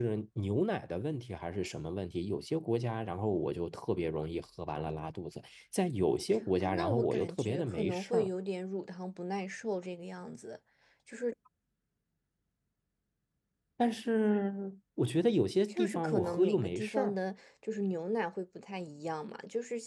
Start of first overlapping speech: 7 s

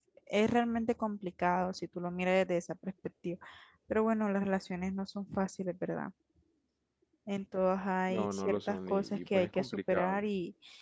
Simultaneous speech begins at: 8 s

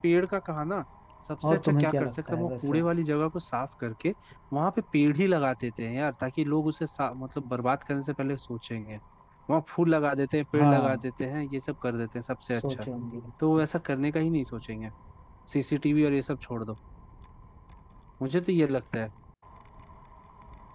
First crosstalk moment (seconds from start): 1 s

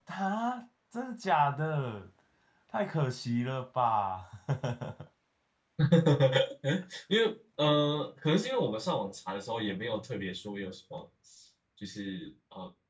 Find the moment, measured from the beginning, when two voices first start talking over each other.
none

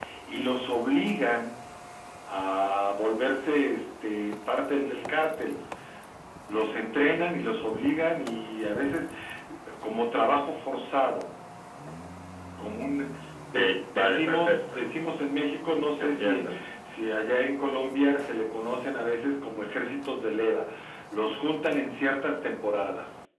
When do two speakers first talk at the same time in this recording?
14 s

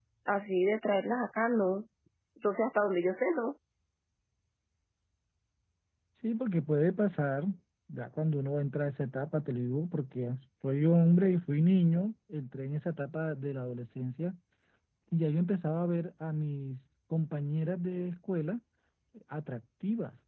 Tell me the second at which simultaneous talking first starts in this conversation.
none

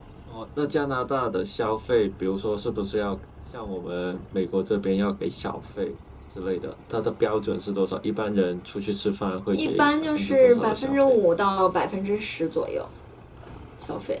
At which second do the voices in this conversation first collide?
10 s

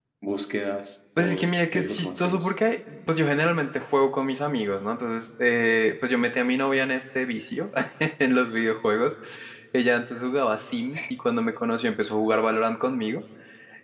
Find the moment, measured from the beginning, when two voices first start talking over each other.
1 s

